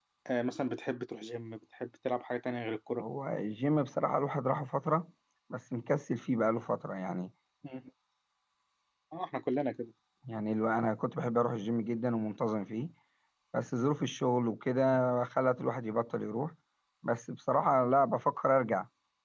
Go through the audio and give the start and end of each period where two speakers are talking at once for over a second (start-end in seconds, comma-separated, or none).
none